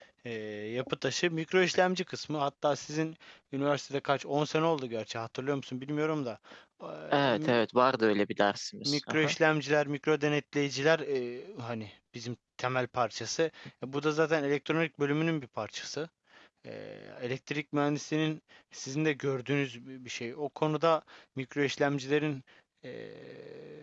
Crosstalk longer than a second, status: none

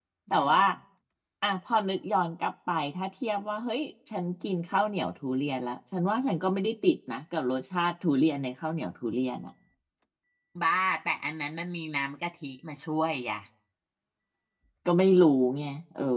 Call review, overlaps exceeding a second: none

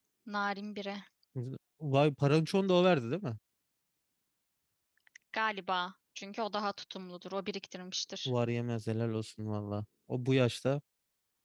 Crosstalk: none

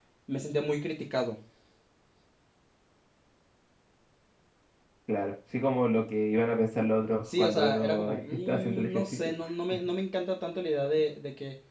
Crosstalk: present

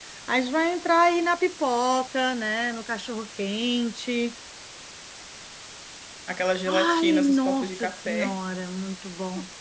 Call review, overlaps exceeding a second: present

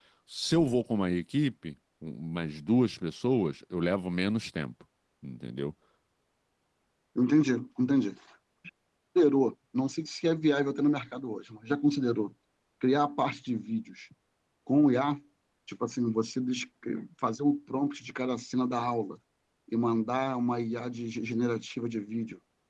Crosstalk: none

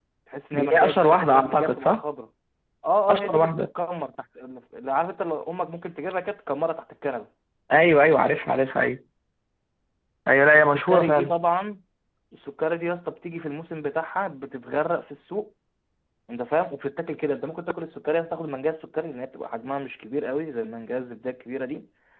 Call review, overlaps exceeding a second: present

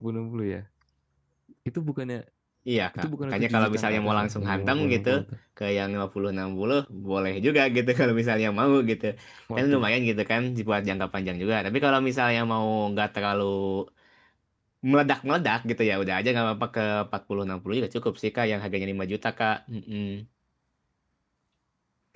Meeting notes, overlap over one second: present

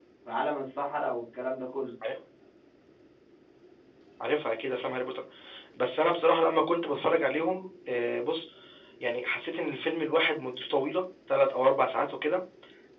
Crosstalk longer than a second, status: none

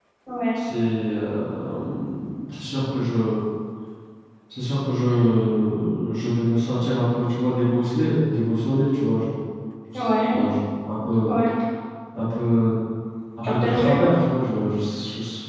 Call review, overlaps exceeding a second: none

